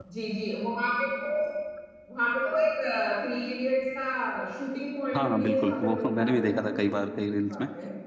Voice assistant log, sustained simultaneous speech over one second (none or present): present